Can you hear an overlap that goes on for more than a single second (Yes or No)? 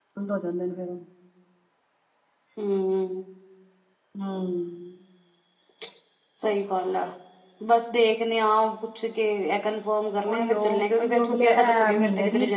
Yes